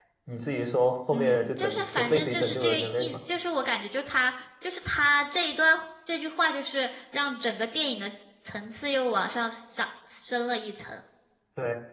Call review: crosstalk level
present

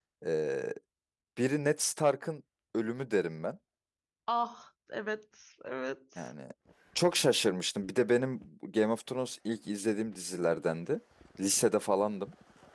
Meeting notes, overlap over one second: none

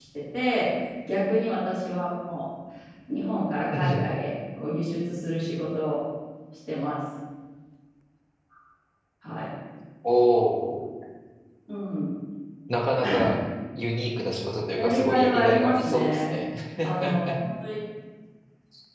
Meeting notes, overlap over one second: present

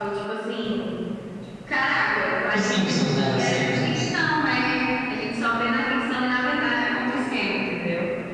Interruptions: present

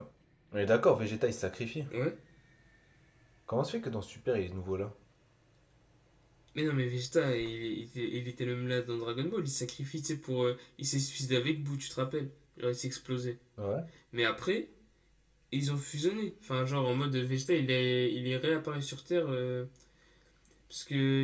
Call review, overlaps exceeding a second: none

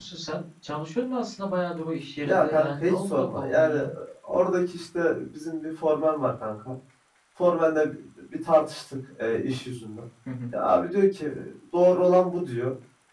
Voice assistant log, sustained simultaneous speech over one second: present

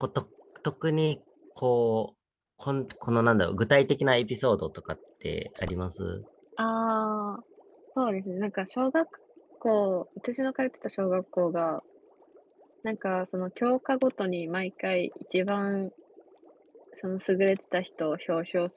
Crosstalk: none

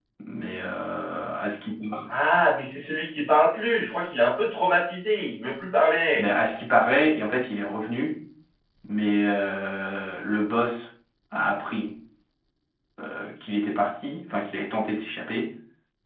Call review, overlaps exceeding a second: none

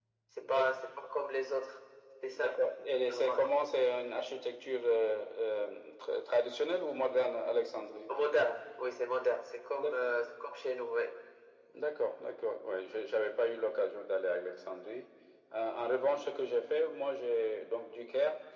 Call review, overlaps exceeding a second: none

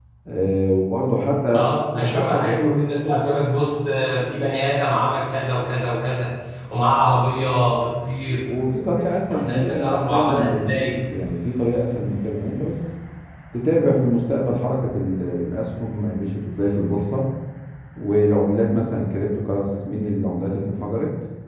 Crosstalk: present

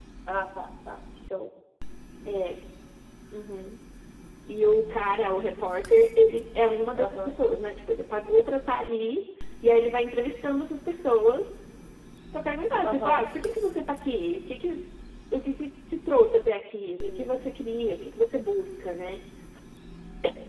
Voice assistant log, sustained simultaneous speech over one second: none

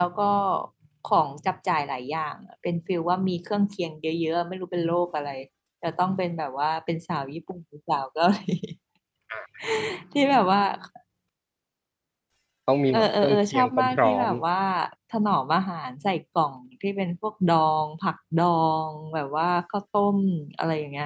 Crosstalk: present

